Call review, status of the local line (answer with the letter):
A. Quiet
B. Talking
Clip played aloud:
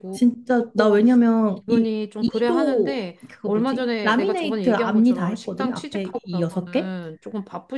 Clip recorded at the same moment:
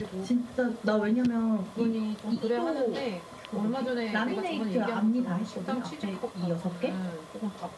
A